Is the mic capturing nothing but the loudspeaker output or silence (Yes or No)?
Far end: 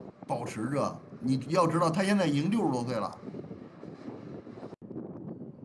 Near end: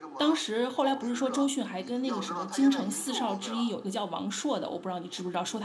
No